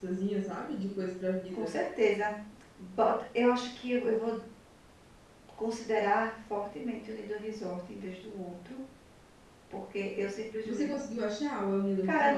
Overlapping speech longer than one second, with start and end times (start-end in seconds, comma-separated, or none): none